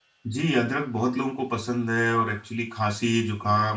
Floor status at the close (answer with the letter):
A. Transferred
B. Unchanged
B